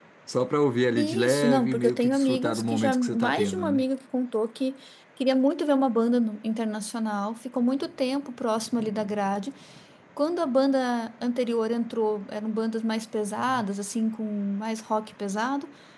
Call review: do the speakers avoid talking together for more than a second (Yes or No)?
No